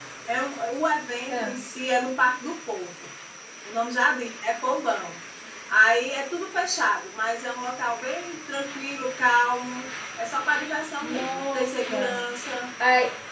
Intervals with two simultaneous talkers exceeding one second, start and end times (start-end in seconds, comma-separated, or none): 11.0-12.2